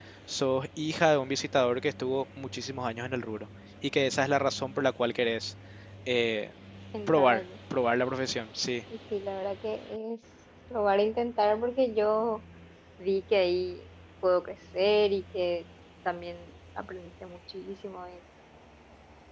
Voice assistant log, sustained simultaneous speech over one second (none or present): none